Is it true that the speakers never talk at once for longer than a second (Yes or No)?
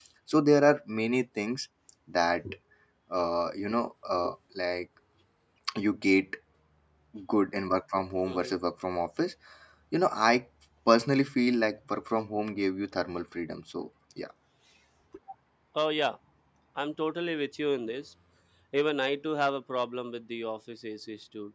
Yes